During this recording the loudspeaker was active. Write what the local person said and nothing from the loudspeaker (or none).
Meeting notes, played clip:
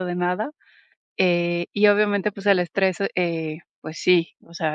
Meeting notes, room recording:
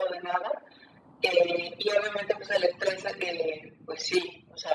none